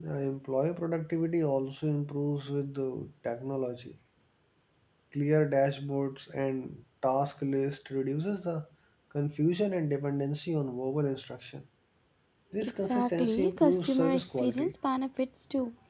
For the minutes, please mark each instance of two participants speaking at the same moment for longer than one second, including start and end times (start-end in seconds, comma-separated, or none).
12.6-14.7